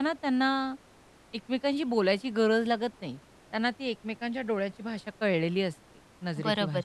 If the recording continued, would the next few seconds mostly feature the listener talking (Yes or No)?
Yes